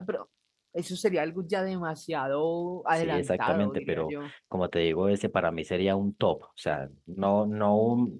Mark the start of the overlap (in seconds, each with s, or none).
3.0 s